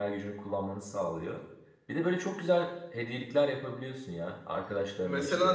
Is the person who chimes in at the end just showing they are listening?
No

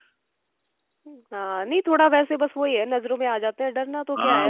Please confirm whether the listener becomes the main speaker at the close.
Yes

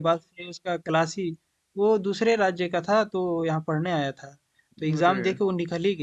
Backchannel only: Yes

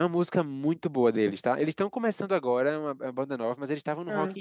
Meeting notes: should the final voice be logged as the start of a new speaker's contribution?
No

